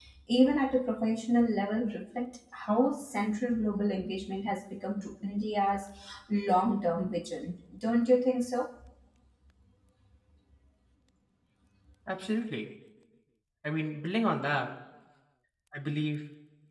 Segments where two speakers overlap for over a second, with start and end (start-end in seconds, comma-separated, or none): none